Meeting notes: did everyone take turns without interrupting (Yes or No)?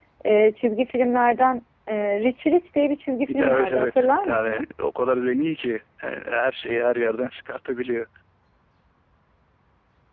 No